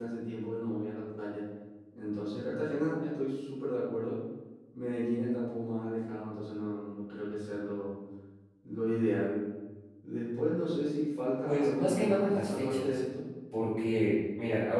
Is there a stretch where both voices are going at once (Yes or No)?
Yes